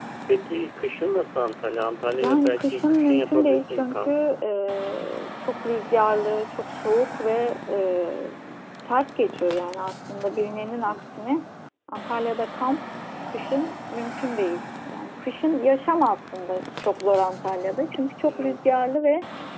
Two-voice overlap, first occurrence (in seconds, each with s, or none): 2.2 s